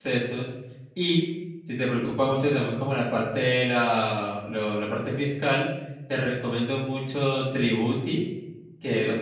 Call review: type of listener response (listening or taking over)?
listening